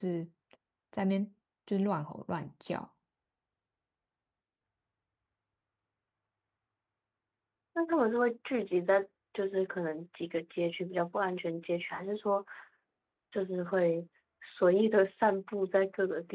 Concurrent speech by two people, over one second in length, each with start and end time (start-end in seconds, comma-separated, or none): none